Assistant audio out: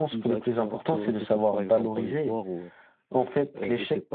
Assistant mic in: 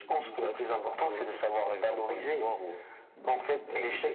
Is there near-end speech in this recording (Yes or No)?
No